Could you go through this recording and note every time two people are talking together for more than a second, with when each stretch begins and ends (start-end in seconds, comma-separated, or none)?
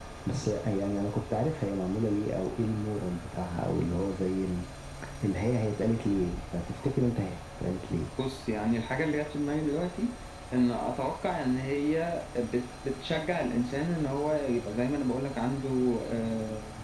none